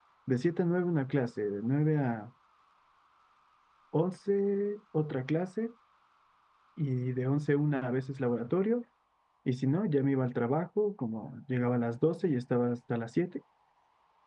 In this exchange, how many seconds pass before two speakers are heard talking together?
none

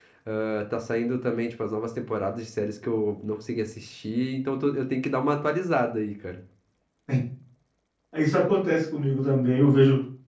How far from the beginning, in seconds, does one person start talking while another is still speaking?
none

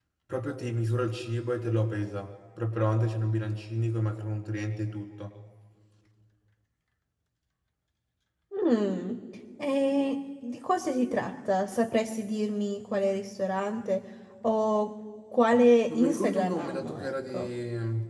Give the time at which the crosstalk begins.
15.9 s

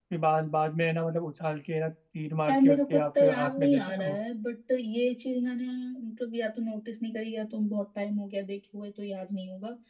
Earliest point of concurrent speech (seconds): 2.5 s

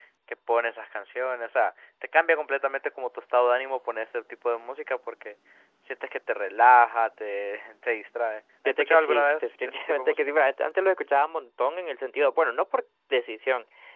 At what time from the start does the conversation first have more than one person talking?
8.6 s

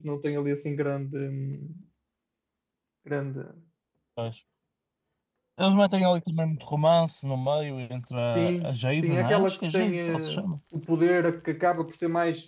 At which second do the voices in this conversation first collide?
8.3 s

